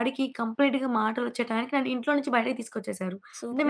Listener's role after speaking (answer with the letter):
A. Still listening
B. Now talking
B